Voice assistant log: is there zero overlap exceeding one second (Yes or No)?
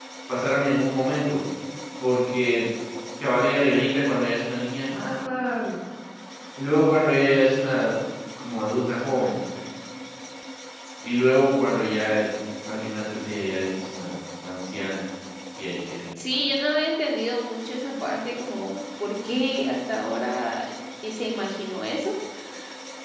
Yes